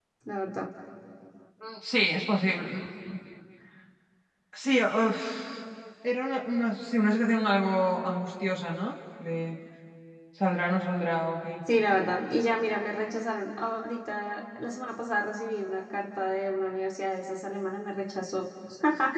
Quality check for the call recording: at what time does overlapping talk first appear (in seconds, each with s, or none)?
none